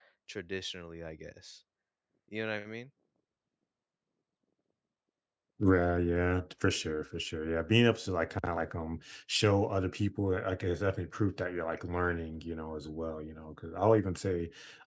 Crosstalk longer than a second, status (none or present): none